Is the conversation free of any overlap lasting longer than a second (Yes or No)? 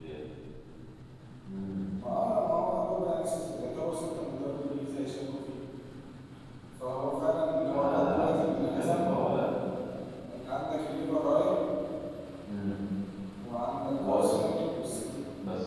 No